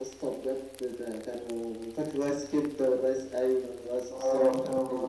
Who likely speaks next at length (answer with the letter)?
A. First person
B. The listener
B